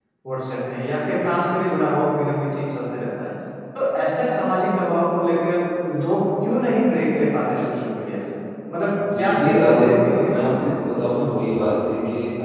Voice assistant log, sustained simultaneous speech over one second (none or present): present